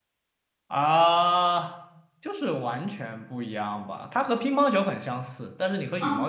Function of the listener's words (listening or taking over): listening